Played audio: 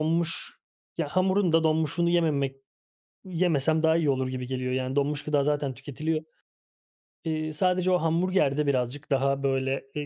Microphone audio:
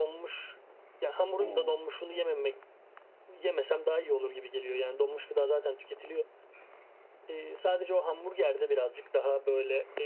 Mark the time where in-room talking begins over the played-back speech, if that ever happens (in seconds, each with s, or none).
1.4 s